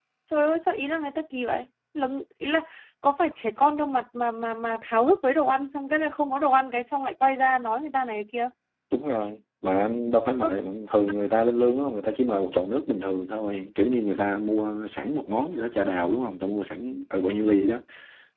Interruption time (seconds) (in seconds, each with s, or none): none